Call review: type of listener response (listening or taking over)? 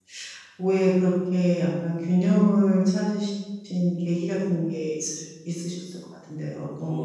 taking over